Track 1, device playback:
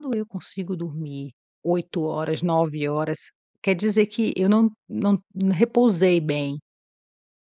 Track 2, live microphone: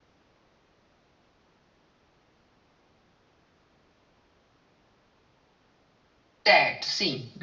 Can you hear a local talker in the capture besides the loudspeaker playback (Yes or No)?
Yes